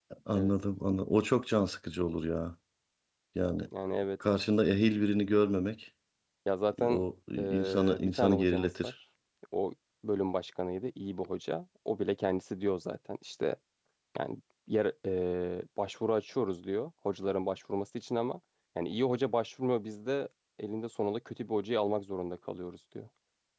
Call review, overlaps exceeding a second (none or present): present